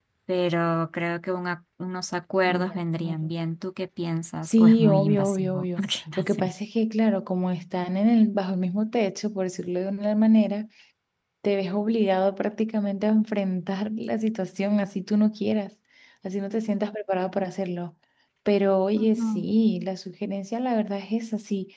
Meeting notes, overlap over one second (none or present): present